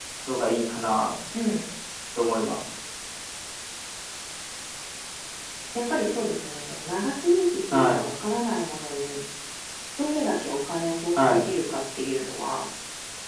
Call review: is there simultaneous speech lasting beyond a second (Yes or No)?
No